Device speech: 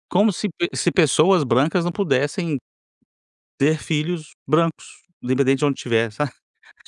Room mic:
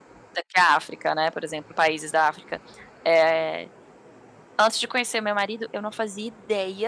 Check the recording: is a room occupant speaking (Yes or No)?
Yes